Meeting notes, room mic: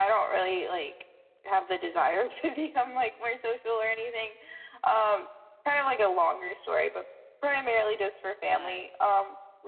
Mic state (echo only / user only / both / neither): both